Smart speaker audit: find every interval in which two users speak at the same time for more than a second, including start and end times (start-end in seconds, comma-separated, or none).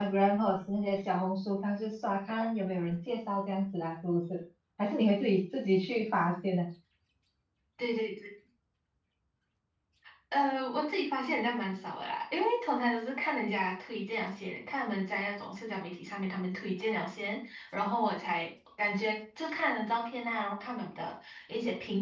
none